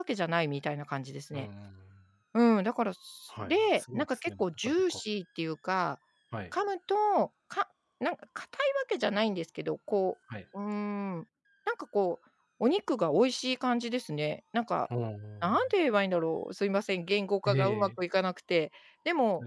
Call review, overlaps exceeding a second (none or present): present